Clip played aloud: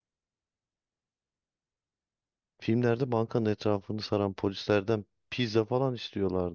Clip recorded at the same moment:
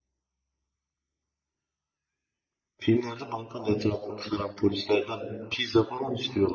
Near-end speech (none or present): none